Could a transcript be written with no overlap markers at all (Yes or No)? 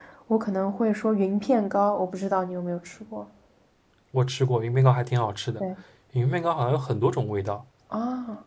Yes